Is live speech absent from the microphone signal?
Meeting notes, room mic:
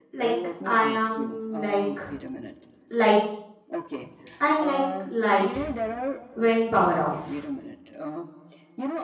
No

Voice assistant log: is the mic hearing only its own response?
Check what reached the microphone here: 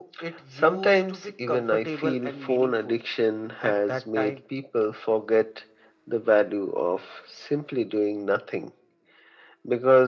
Yes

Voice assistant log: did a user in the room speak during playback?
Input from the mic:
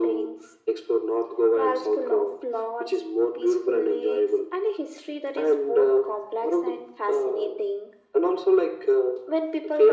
No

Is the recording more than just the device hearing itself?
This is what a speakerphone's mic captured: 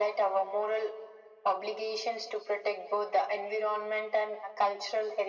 No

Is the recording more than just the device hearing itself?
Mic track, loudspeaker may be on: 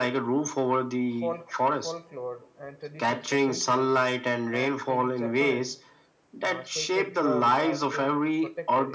Yes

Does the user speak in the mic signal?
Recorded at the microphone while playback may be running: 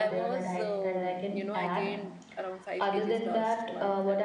Yes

